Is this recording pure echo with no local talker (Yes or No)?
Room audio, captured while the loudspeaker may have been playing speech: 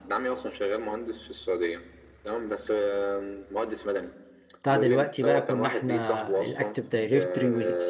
No